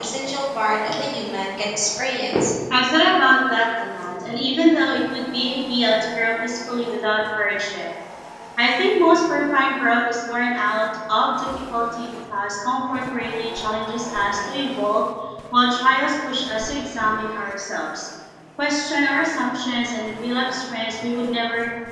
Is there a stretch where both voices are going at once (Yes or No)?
No